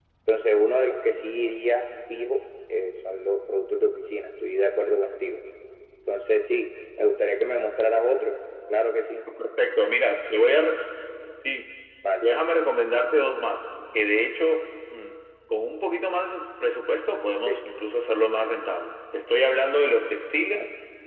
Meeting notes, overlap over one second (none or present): none